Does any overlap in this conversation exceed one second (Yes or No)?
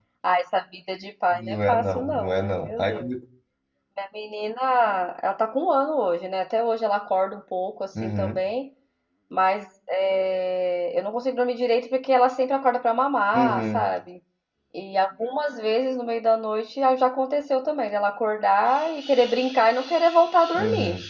Yes